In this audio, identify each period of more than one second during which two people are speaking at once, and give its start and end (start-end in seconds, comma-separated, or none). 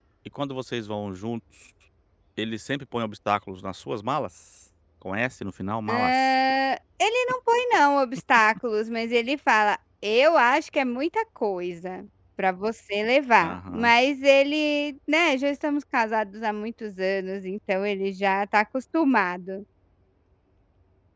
none